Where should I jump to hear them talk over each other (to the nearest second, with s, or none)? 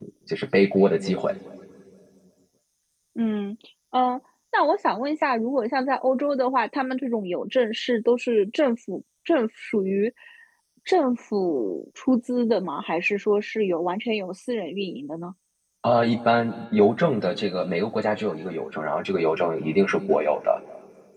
none